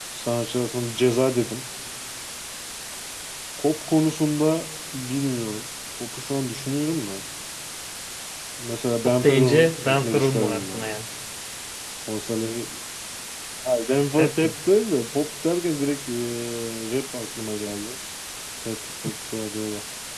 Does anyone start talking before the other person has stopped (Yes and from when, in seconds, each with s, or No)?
Yes, from 9.2 s